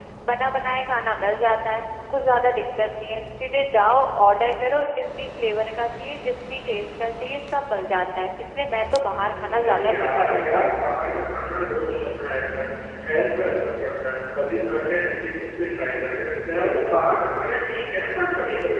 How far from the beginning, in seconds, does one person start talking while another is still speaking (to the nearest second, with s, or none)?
9 s